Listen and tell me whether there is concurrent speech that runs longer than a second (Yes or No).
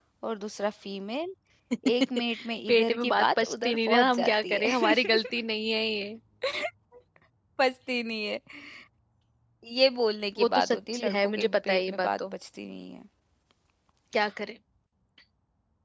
Yes